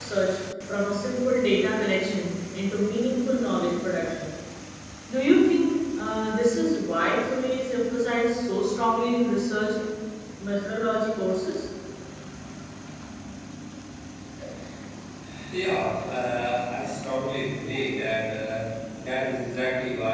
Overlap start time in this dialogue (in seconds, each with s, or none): none